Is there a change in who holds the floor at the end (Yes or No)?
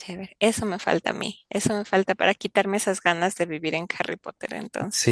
Yes